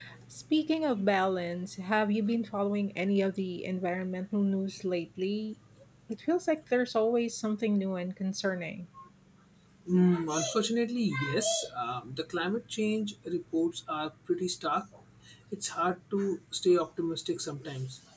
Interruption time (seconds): none

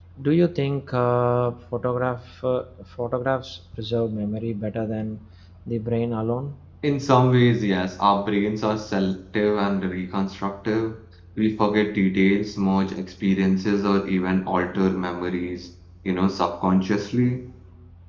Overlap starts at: none

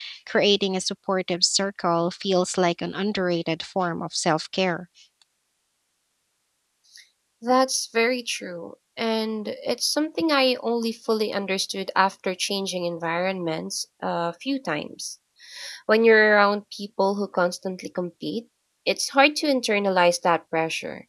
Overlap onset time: none

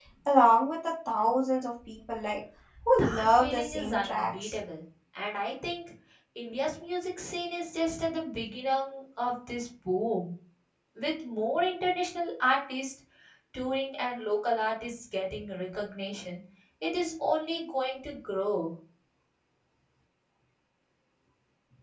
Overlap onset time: 3.0 s

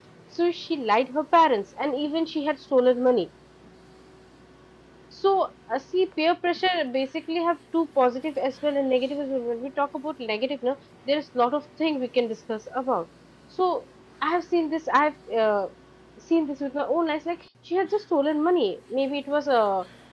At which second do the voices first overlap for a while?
none

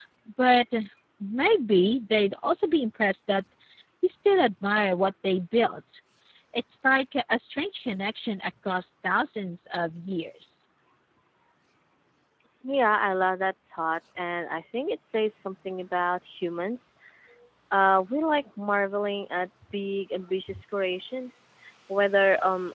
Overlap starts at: none

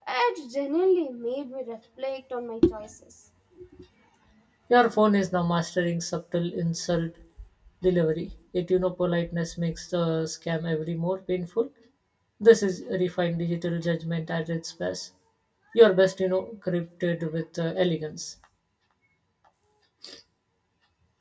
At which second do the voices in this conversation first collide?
none

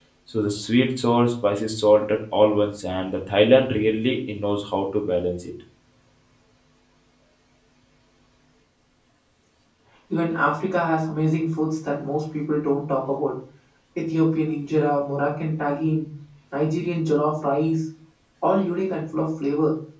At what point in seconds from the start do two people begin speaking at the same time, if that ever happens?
none

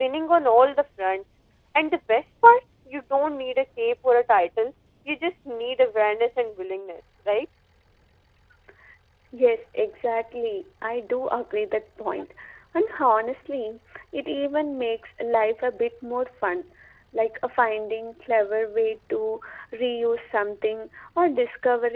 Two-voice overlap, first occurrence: none

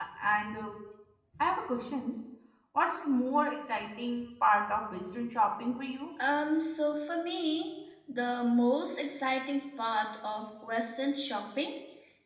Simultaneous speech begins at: none

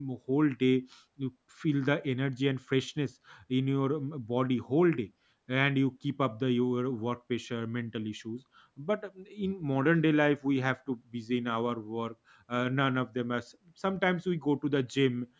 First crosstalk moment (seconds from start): none

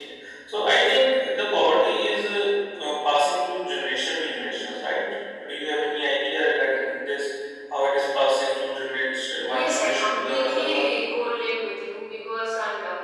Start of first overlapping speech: 9.5 s

